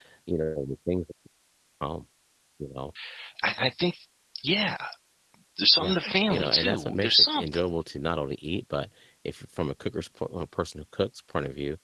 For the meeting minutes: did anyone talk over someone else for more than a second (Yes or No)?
Yes